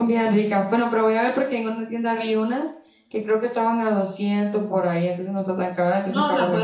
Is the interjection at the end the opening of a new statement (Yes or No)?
Yes